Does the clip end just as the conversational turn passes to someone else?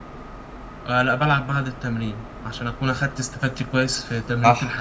Yes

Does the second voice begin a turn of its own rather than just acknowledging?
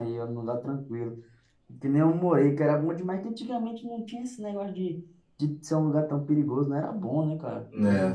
Yes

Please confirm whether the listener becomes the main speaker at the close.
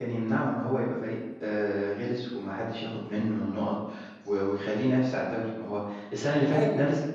No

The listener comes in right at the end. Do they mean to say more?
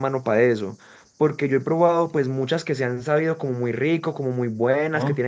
No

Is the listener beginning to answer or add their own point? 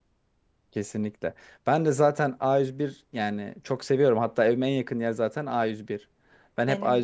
No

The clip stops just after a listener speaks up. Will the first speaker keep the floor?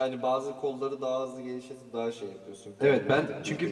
No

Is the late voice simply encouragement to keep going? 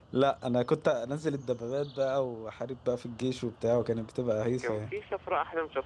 No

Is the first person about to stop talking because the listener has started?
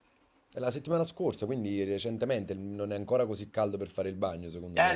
Yes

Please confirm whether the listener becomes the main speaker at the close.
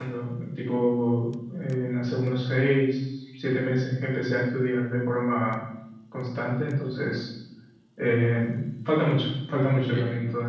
Yes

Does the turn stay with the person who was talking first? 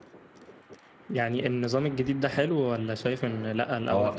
No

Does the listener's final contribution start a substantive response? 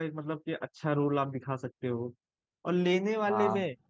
No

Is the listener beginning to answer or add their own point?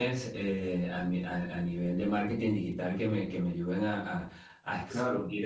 No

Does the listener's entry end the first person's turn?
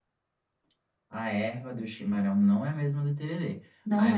No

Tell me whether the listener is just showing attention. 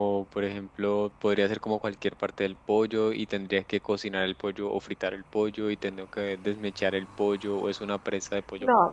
No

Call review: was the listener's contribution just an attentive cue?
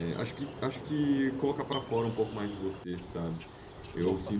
Yes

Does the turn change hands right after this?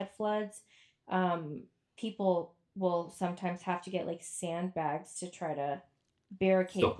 No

